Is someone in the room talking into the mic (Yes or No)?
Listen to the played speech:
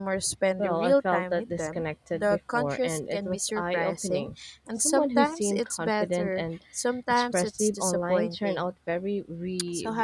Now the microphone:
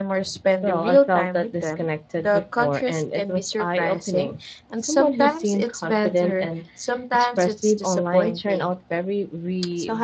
No